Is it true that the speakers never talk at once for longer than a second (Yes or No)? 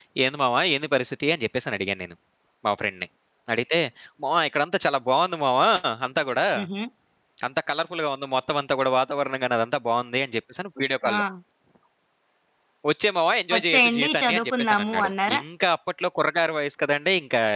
No